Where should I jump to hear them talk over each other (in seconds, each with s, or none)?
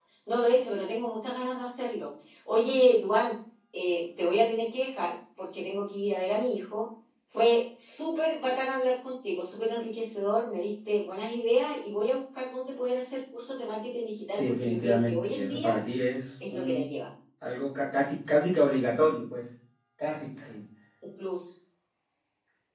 14.4 s